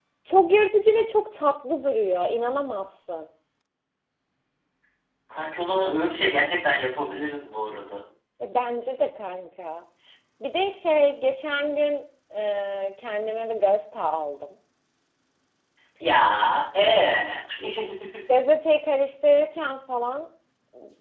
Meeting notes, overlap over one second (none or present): none